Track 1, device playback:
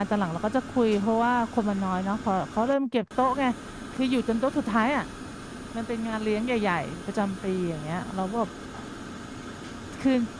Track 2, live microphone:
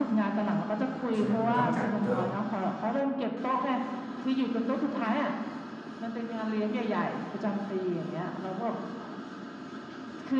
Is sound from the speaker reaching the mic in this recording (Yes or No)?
Yes